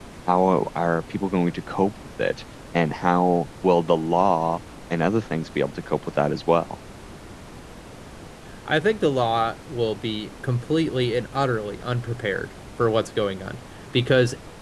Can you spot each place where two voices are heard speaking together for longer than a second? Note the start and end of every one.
none

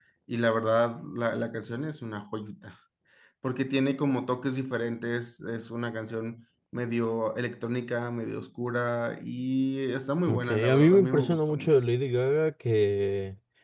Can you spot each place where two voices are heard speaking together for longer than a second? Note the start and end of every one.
10.3-11.7

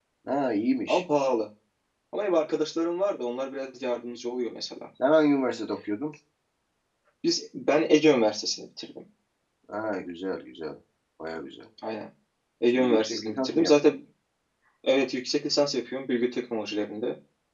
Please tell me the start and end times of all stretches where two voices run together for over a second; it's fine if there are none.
12.7-13.9

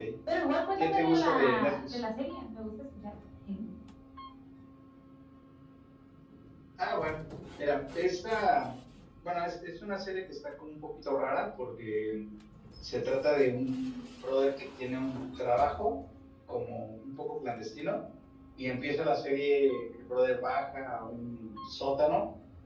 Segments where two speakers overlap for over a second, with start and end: 0.8-2.0

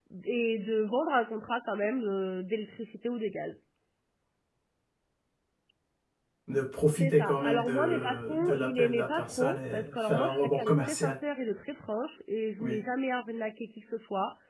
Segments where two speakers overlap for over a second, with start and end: 7.0-11.2

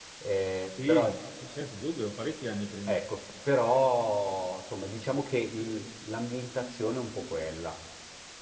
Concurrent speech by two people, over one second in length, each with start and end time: none

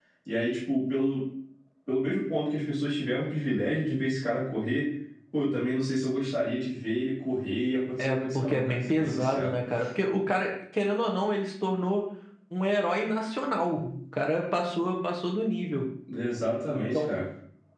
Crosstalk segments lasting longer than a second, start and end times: 8.0-9.5

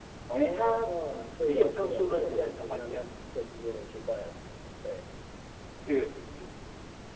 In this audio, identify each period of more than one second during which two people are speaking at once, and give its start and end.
1.4-3.0

